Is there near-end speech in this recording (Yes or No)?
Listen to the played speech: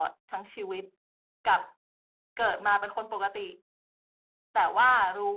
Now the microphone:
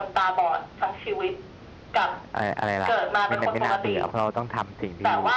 Yes